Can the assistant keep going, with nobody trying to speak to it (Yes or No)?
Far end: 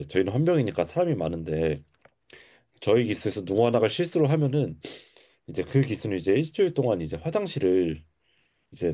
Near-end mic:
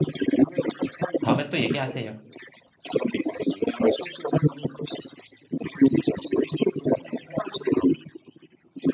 No